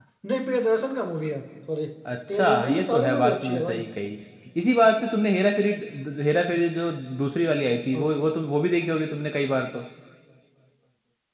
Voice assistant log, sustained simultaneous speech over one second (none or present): present